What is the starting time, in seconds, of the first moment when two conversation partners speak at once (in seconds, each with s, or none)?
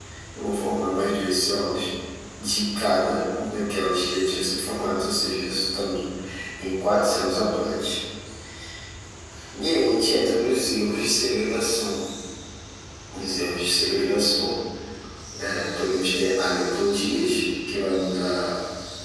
none